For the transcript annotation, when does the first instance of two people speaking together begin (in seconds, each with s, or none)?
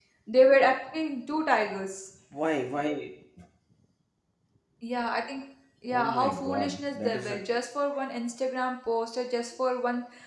5.9 s